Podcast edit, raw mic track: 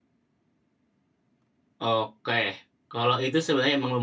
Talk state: user only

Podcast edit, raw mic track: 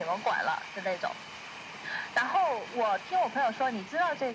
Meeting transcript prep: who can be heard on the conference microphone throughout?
echo only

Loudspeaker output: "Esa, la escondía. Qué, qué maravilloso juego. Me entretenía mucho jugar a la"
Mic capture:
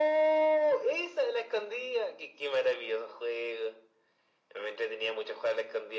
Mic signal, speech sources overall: echo only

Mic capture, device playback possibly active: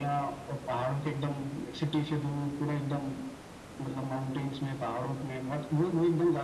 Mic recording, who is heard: echo only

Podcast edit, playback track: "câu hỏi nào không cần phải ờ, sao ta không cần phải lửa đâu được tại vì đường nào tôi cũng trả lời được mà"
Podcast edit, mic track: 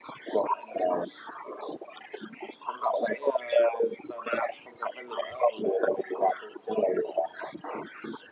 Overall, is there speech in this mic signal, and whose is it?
echo only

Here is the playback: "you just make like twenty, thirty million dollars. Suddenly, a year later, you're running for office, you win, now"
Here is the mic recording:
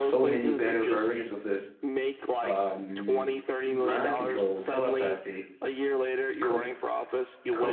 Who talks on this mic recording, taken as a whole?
both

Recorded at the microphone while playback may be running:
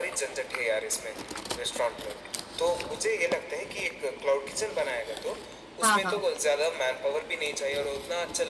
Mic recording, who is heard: both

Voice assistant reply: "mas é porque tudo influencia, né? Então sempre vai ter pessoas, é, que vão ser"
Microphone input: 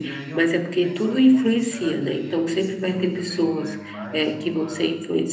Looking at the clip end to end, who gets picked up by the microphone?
both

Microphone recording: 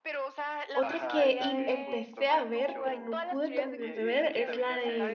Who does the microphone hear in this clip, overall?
both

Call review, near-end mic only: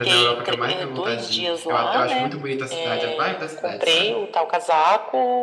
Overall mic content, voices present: both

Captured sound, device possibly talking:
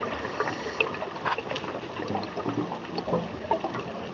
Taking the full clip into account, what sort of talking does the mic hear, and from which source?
neither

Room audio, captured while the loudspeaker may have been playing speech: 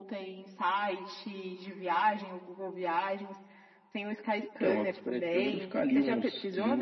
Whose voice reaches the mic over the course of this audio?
echo only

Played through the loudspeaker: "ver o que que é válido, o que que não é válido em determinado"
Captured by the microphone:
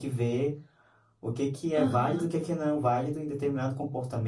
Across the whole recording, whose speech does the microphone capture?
both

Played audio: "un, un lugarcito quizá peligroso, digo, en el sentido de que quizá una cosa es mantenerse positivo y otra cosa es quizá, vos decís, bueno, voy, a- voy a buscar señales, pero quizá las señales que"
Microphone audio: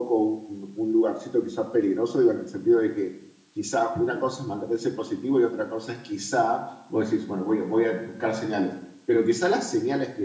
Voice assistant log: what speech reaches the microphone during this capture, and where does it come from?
echo only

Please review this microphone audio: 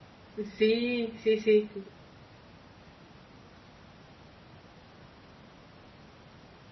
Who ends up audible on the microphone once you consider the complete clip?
user only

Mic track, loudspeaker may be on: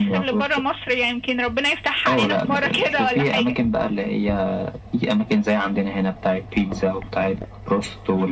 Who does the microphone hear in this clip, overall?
echo only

